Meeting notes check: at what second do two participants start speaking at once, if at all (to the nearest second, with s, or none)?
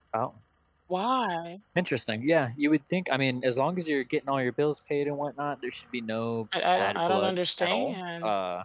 7 s